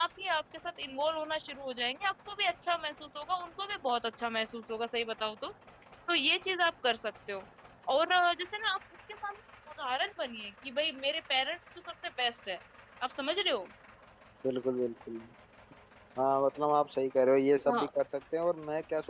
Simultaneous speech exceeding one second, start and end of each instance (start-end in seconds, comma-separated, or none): none